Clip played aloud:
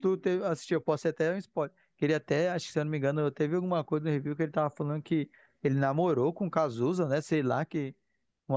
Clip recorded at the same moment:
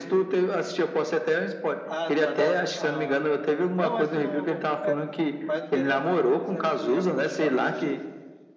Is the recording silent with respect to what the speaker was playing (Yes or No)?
No